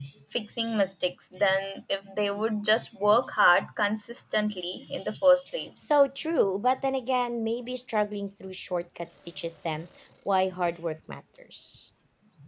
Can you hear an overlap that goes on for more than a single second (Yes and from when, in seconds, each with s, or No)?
No